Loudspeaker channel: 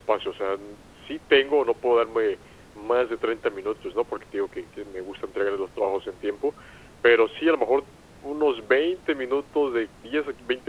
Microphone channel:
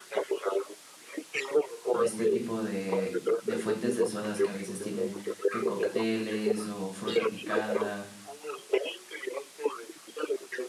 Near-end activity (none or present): present